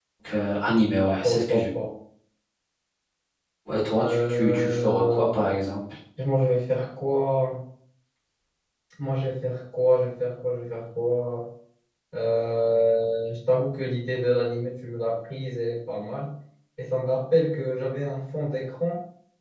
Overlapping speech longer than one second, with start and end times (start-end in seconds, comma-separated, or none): 4.0-5.5